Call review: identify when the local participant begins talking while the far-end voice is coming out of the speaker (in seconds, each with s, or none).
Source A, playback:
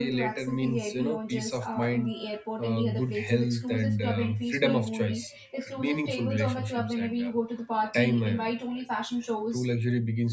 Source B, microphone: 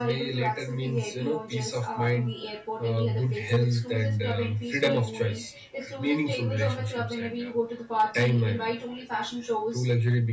none